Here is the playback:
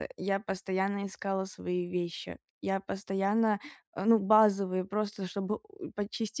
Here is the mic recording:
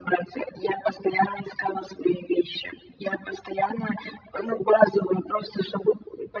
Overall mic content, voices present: echo only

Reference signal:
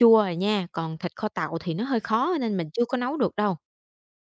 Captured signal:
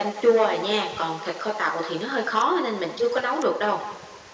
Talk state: echo only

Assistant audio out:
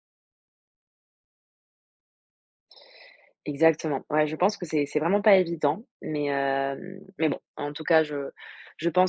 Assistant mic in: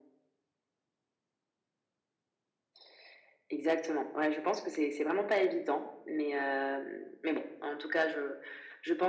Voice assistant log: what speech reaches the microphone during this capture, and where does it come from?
echo only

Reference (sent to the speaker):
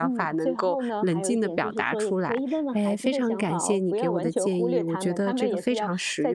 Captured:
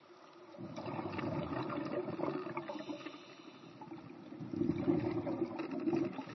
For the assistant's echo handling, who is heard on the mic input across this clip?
neither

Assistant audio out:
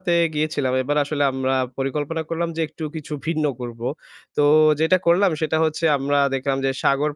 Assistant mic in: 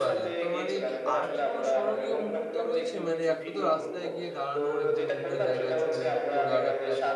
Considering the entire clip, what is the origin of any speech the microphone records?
both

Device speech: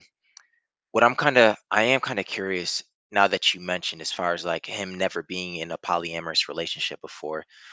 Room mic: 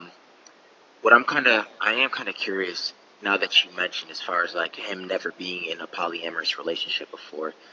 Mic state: echo only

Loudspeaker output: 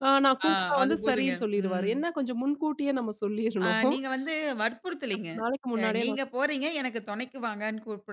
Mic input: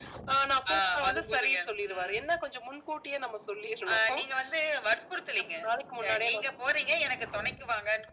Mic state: echo only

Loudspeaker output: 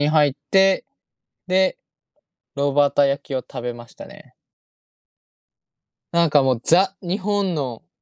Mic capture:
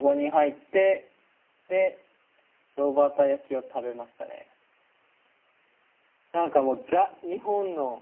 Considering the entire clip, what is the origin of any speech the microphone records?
echo only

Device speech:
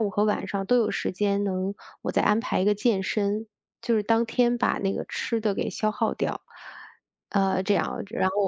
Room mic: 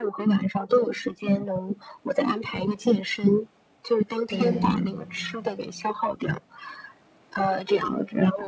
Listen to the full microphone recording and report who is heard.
both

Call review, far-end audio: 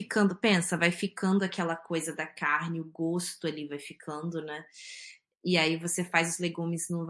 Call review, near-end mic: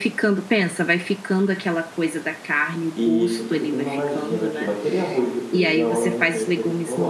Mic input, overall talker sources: both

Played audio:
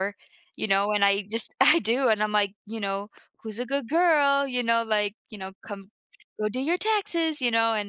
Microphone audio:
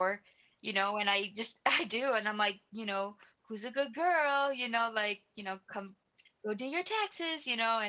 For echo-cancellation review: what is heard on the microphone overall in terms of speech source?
echo only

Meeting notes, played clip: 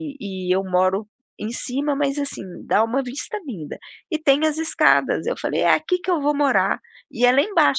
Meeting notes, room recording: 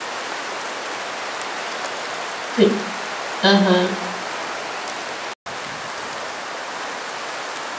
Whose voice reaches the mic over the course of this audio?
user only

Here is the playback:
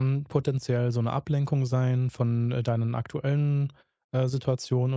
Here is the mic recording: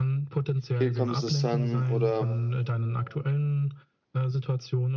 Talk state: both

